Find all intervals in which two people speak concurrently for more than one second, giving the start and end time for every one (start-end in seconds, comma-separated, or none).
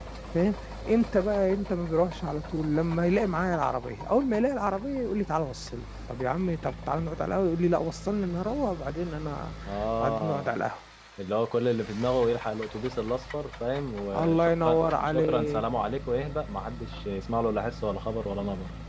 14.1-15.6